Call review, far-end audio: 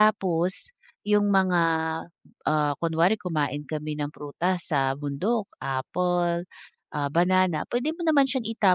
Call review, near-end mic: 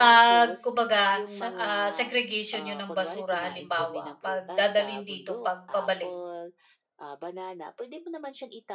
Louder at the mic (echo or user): user